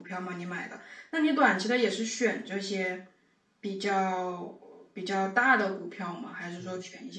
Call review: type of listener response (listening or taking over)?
taking over